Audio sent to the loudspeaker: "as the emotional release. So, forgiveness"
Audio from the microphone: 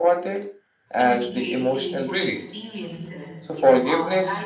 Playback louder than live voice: Yes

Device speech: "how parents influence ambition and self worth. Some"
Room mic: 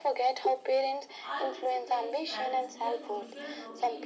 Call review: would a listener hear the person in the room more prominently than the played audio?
No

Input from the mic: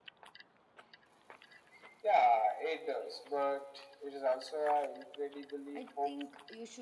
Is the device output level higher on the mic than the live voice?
Yes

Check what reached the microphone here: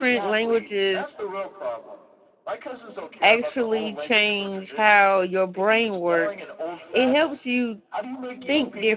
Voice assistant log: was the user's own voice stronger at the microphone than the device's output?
Yes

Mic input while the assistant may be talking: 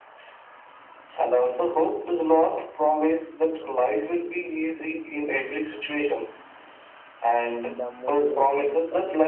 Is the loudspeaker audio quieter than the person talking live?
No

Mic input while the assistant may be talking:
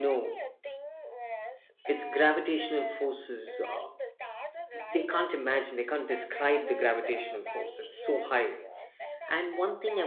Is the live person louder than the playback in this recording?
Yes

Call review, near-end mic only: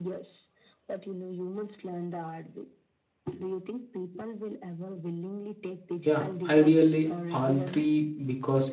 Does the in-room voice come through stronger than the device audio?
Yes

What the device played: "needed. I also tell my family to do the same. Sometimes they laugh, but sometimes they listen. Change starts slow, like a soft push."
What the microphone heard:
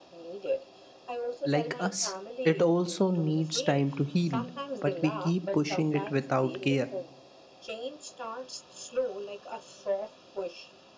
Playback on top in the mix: No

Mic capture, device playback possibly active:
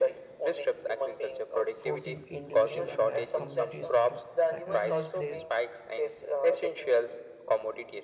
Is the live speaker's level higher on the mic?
No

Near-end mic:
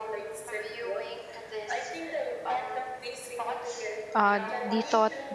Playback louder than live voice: No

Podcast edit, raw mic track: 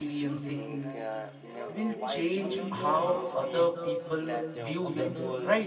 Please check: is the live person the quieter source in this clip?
No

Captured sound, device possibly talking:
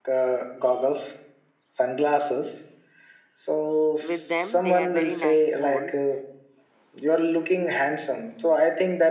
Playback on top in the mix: Yes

